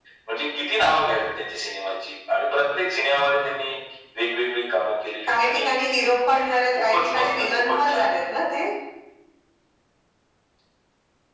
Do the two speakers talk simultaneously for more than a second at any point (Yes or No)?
Yes